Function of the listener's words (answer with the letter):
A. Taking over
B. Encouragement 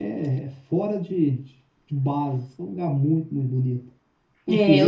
A